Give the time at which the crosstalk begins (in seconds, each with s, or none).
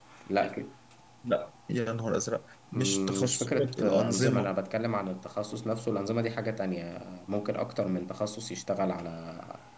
2.7 s